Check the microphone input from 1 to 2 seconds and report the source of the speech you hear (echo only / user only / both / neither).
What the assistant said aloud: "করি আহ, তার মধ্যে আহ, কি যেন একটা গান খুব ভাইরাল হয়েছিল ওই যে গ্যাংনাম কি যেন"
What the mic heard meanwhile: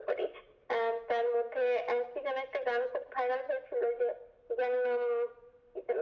echo only